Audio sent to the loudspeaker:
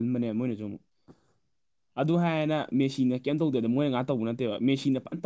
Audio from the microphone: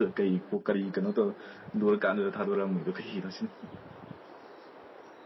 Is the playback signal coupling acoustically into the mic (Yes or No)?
No